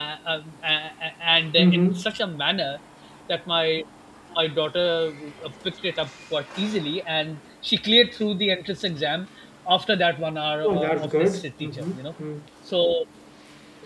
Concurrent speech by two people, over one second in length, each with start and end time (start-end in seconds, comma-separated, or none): 10.6-12.0